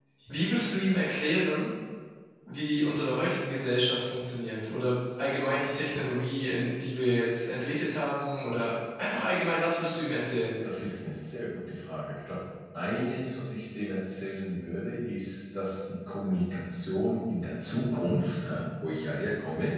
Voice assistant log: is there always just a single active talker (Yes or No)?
Yes